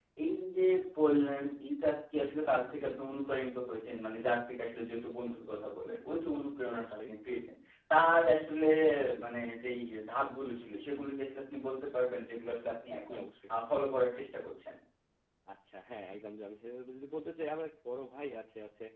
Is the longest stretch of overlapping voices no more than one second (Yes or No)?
Yes